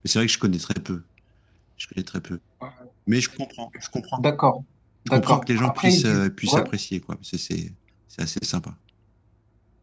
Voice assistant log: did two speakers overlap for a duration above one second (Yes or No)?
Yes